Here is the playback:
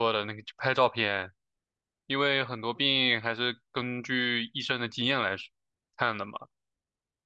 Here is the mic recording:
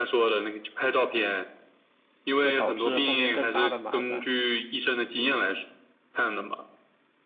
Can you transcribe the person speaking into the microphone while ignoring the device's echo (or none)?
会导致后面更大的麻烦。